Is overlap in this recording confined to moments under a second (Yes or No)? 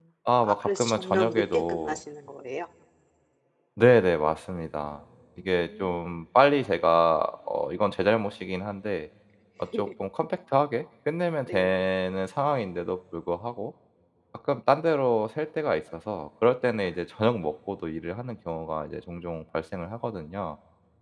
No